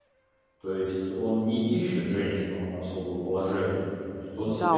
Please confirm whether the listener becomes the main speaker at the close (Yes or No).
Yes